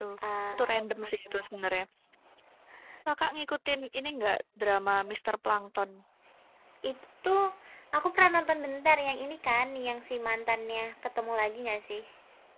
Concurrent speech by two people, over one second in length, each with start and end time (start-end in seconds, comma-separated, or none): none